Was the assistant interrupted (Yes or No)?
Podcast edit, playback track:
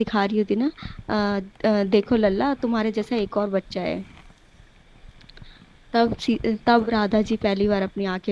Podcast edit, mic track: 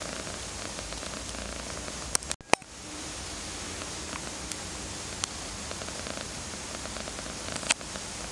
No